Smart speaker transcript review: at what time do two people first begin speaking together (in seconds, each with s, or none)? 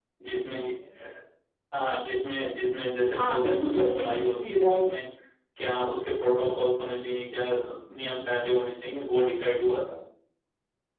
3.1 s